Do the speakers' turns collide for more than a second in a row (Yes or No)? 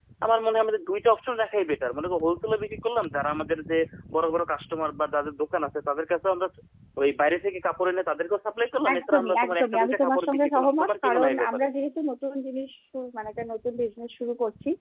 Yes